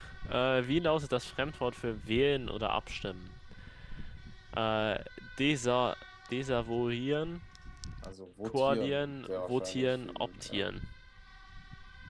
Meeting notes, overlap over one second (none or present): present